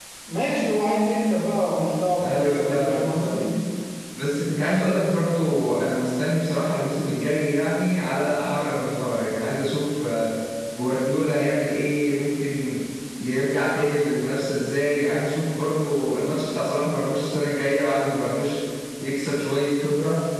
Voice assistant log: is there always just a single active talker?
No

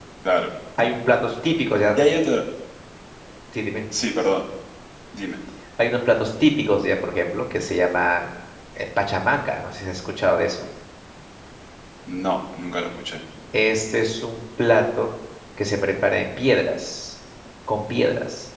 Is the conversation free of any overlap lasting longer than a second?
Yes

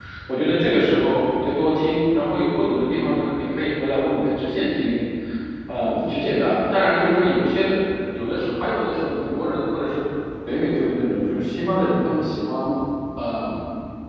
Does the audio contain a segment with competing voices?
No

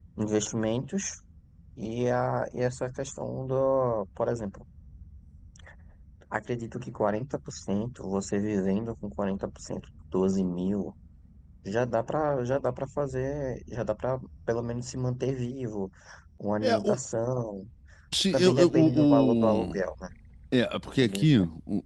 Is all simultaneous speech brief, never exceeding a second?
No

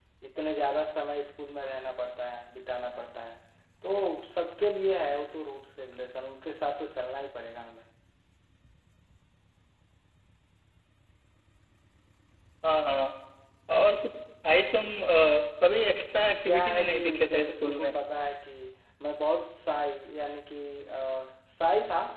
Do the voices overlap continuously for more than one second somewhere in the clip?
Yes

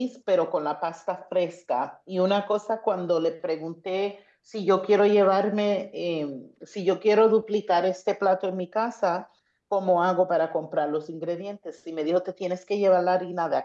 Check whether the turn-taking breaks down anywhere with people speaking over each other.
No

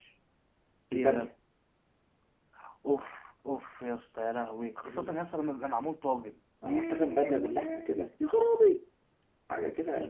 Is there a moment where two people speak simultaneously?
Yes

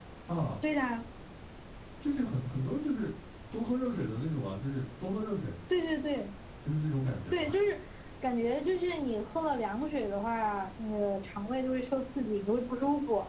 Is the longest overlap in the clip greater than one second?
No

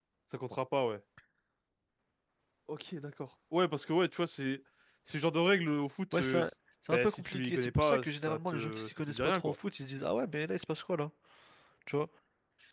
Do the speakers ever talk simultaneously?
Yes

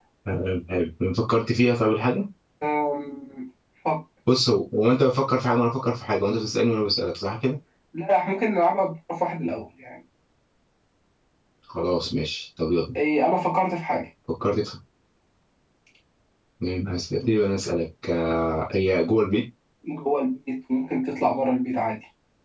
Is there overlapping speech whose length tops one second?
No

